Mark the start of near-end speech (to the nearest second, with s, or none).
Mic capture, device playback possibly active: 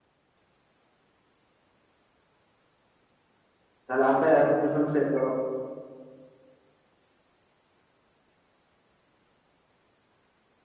4 s